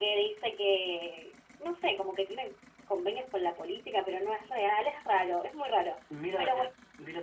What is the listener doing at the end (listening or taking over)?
taking over